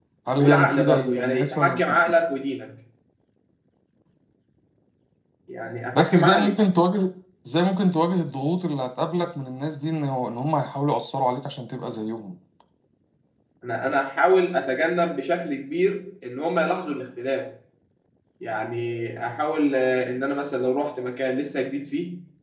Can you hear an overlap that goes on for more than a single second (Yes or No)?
Yes